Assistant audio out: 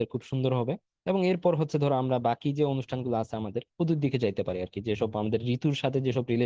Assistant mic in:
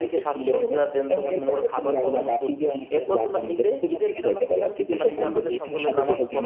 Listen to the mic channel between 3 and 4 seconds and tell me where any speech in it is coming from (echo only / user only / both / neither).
both